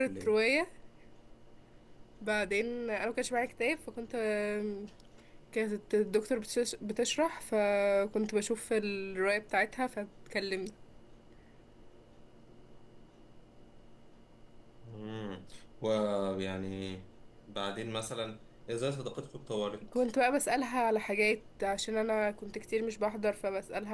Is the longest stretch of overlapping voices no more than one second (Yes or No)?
Yes